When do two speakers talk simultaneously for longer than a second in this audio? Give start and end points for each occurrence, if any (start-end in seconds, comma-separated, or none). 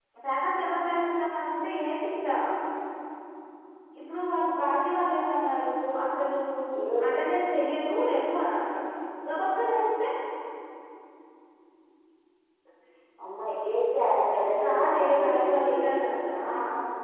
14.6-15.9